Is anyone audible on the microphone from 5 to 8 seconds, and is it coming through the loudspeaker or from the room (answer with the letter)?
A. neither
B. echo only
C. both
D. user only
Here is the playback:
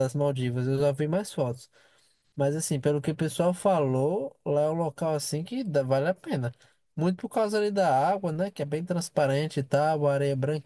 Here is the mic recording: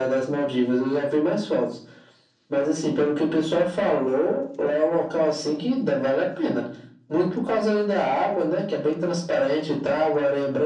B